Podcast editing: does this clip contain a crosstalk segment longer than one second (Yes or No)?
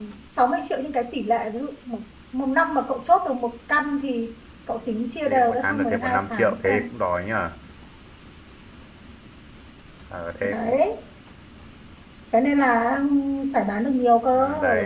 Yes